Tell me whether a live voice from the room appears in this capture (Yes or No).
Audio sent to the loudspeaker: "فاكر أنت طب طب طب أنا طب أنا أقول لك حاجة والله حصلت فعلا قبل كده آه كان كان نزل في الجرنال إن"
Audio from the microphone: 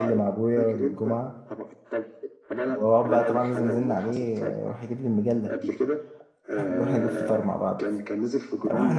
Yes